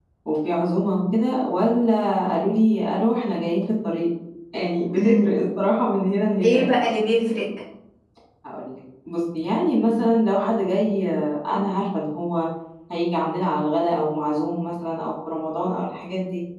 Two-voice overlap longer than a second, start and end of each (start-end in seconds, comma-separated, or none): none